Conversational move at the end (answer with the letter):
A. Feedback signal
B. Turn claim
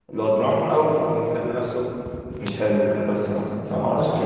B